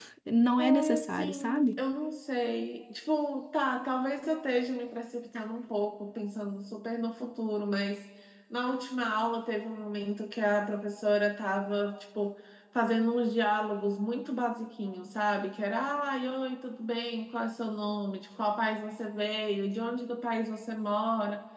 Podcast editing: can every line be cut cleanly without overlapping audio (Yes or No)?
No